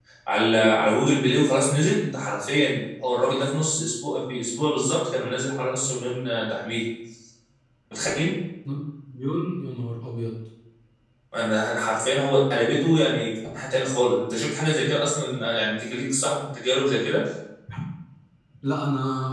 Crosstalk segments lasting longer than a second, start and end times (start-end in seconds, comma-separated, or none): none